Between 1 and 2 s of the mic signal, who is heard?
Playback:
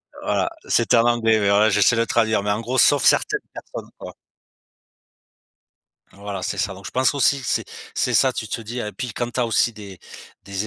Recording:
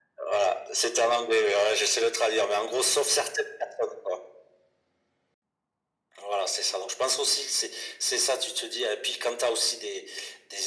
echo only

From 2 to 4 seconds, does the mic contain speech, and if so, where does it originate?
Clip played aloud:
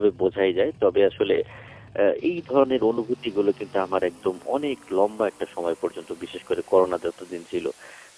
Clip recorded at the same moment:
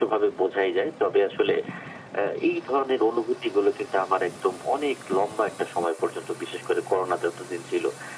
echo only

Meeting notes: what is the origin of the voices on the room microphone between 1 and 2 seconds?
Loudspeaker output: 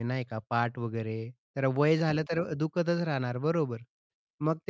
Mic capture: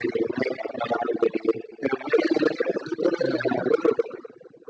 echo only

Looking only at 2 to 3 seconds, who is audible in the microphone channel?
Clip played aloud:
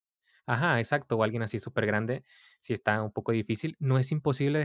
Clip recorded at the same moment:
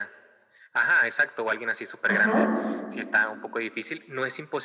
both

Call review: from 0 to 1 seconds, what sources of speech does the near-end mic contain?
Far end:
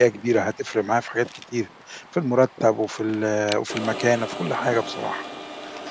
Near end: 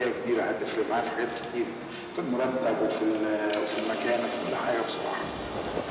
echo only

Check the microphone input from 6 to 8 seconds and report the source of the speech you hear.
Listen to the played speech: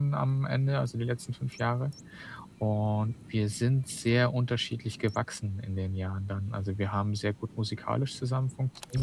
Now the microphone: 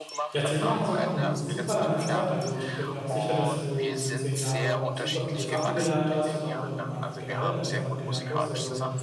both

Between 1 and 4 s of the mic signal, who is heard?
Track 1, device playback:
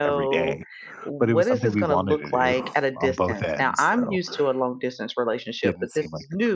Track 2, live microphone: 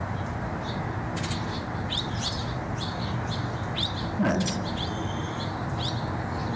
neither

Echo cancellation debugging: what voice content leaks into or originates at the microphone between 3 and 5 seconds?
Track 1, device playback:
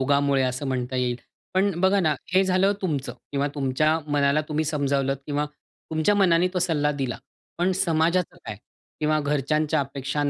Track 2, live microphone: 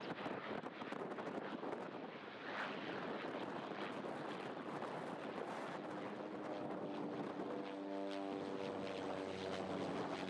neither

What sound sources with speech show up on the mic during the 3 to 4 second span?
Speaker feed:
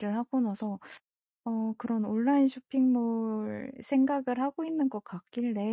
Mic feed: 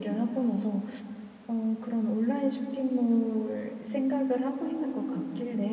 echo only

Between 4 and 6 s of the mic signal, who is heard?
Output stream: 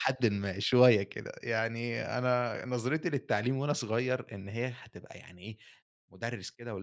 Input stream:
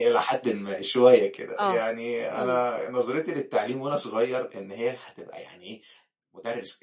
echo only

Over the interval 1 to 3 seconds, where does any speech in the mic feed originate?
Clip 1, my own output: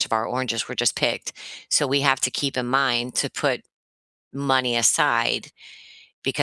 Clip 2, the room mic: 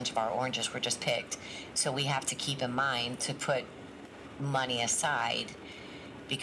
echo only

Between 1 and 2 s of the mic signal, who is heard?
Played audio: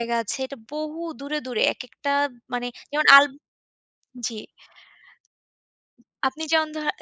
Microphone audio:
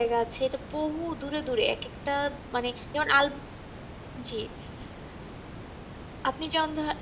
echo only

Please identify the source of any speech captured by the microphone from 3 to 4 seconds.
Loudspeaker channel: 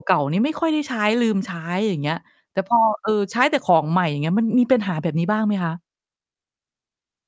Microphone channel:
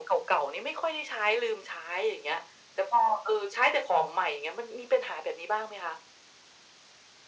echo only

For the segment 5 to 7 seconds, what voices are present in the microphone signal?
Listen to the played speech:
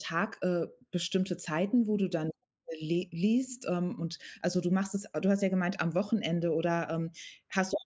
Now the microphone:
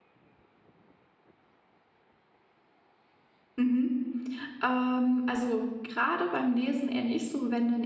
user only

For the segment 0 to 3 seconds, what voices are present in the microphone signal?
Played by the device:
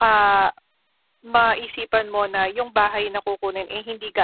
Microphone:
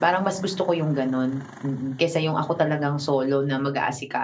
user only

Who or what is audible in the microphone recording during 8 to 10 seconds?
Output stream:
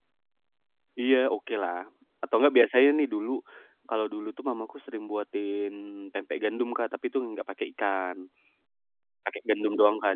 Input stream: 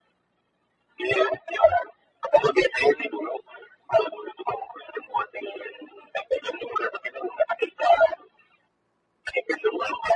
echo only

